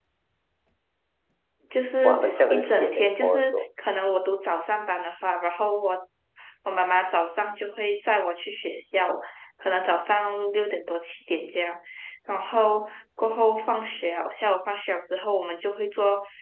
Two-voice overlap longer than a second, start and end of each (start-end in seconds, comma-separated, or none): 2.0-3.6